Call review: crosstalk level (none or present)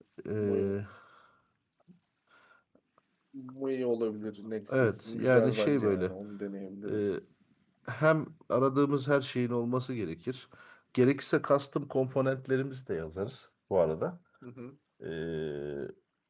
present